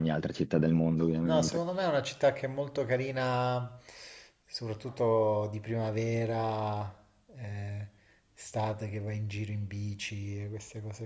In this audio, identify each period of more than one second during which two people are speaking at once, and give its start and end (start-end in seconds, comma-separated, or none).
none